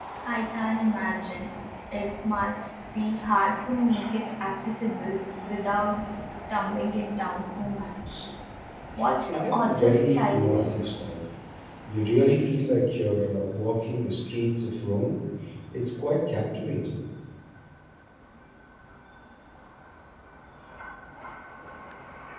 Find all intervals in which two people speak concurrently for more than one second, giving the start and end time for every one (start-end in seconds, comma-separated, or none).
9.3-10.7